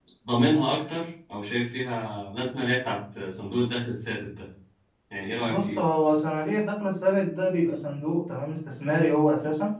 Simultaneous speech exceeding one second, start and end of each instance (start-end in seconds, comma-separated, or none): none